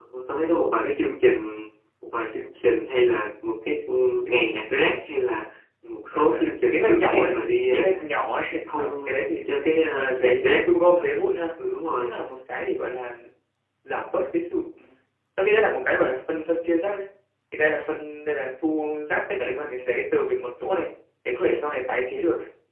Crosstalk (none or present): present